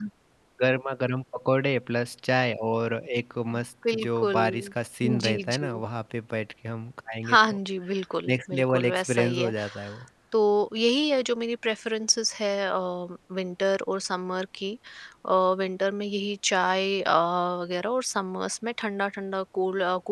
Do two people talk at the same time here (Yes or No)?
Yes